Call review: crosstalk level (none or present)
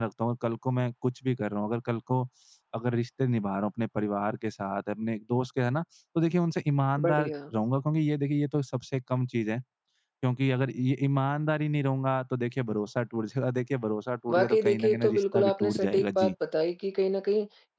present